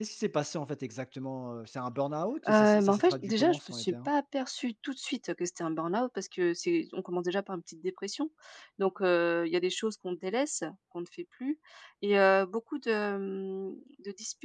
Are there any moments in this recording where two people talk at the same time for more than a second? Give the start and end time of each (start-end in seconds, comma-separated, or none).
2.5-4.1